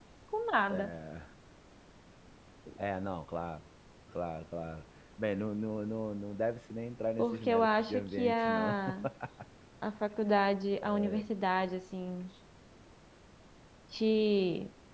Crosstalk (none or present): present